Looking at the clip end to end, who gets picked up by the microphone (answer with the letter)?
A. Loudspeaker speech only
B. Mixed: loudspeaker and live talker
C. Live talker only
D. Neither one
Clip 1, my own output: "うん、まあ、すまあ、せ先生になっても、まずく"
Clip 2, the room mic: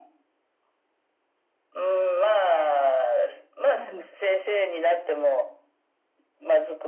B